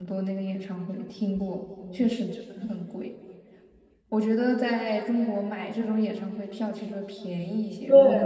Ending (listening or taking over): taking over